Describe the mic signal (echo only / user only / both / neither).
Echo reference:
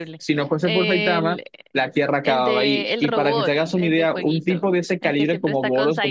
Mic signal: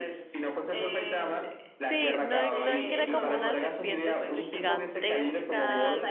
both